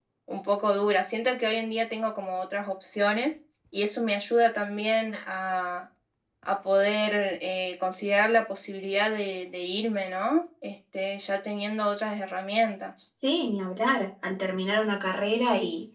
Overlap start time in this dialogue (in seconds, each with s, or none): none